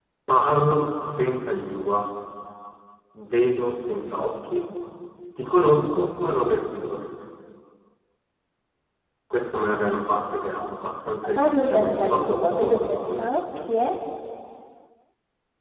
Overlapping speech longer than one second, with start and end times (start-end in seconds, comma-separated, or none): 11.4-13.3